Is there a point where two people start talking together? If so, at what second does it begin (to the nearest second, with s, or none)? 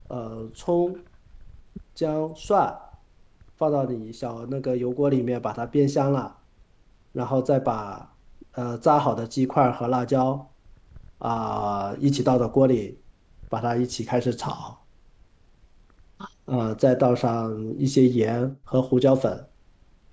none